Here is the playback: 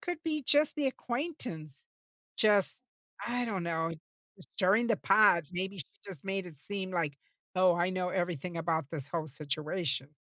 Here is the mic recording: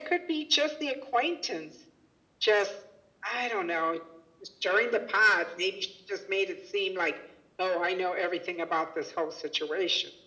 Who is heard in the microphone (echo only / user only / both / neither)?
echo only